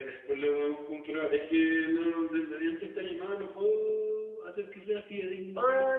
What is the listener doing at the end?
taking over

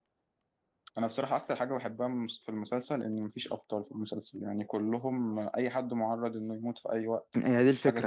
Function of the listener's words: taking over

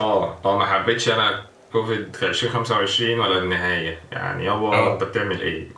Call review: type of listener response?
listening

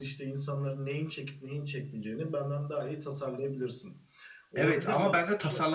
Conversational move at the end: taking over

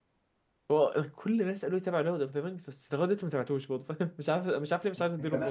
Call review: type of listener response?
taking over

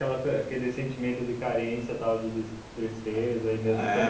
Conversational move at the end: taking over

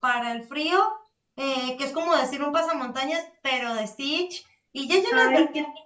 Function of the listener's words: listening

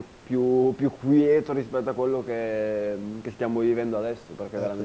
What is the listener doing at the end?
taking over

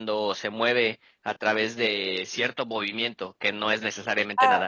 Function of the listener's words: taking over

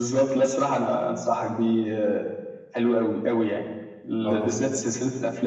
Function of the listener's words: listening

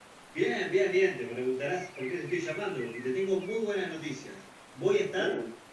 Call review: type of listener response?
listening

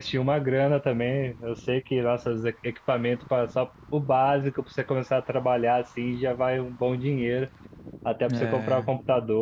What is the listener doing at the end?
listening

